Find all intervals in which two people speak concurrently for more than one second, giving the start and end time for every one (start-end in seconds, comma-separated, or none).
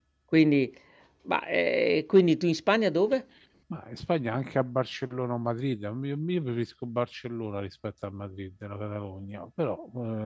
none